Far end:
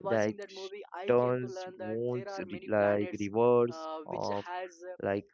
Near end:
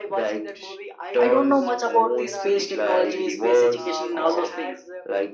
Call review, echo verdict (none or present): present